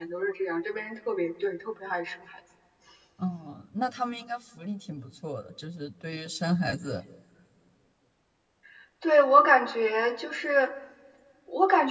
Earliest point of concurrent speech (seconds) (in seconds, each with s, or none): none